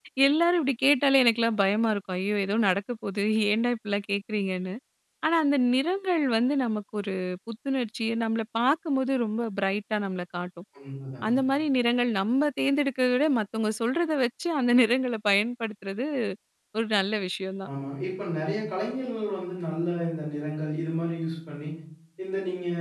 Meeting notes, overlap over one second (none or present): none